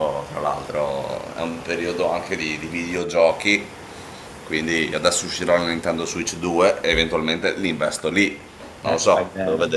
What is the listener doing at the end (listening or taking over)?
taking over